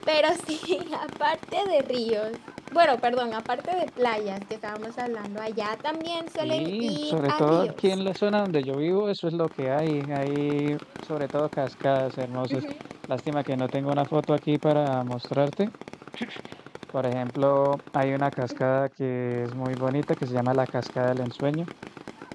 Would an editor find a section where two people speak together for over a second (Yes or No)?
Yes